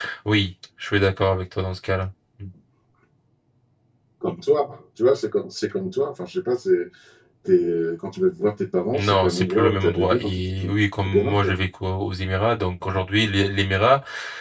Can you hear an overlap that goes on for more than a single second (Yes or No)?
Yes